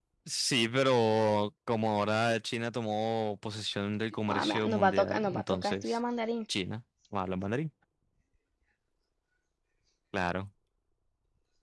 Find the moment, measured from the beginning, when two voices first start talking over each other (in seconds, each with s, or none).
4.3 s